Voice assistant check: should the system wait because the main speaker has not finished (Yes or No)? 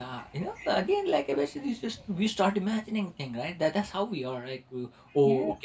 Yes